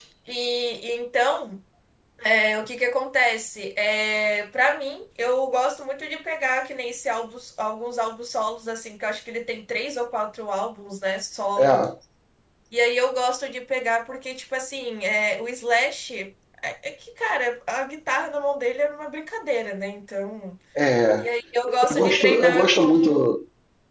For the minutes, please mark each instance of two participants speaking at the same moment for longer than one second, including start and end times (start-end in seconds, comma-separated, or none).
21.9-23.2